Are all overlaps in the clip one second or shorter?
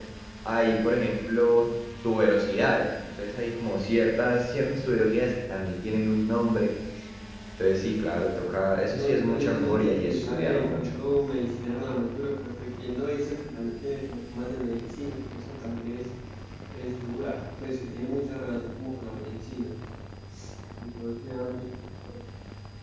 No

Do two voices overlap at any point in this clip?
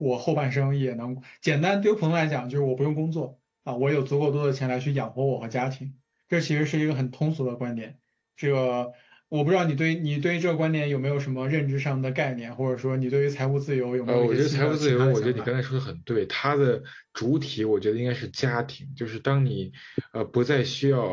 Yes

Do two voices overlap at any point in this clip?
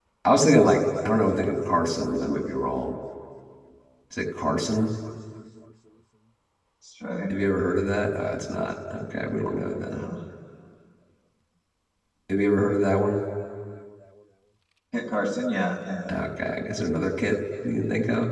No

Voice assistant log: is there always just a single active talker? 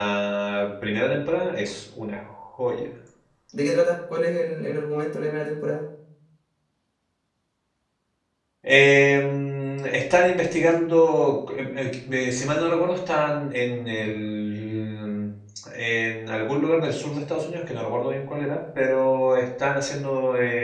Yes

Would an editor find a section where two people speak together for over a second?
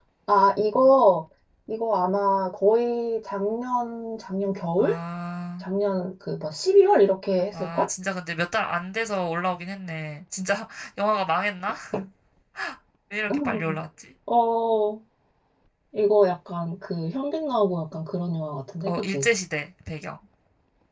No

